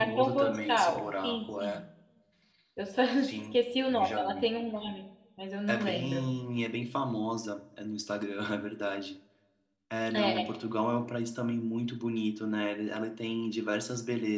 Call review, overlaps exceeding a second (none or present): present